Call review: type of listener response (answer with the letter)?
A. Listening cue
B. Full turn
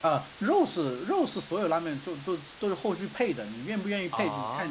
A